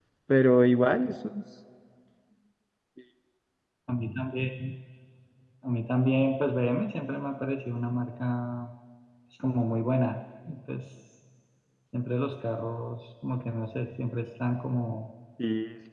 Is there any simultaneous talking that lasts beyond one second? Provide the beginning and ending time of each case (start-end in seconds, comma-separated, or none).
none